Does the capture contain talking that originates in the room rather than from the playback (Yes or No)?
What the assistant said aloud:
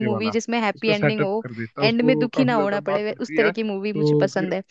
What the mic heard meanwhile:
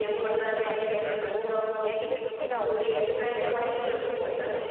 Yes